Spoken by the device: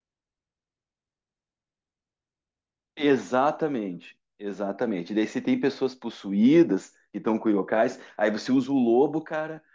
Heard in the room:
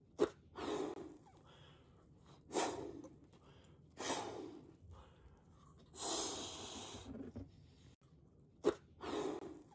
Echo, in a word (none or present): none